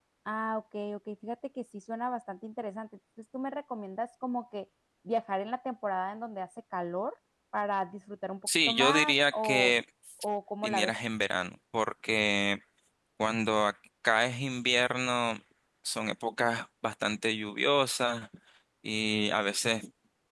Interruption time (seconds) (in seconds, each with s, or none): 8.5 s